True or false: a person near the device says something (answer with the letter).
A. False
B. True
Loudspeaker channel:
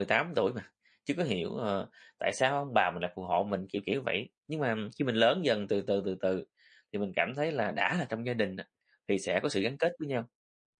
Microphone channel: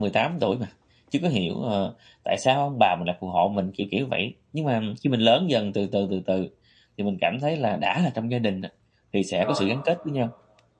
B